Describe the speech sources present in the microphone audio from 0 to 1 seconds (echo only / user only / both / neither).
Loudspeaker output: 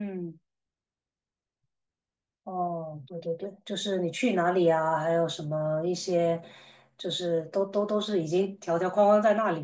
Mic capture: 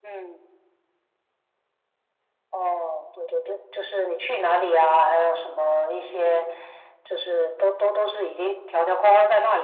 echo only